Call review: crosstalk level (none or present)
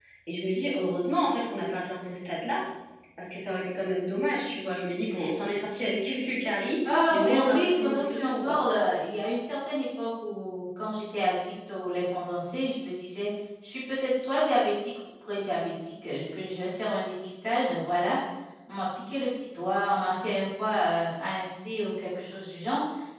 present